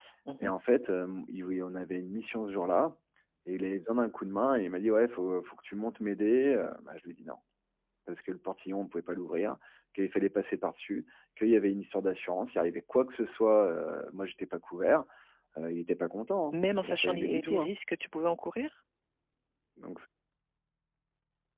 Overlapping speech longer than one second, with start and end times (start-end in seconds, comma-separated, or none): 16.5-17.7